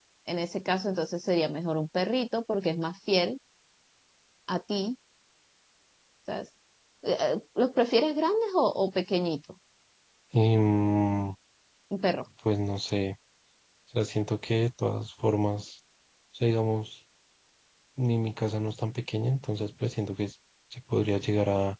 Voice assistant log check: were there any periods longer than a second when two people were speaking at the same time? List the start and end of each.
none

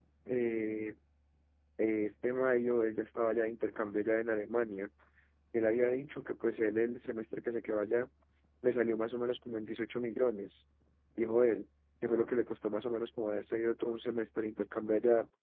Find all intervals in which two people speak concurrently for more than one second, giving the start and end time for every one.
none

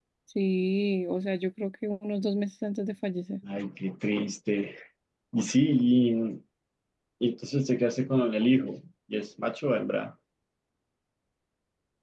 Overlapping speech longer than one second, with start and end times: none

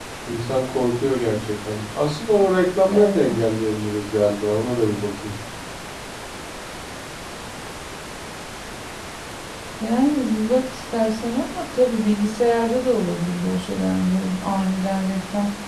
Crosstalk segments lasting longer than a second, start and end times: none

